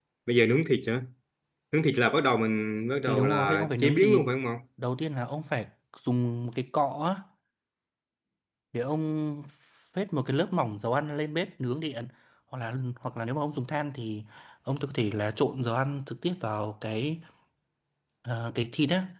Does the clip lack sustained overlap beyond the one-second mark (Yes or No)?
No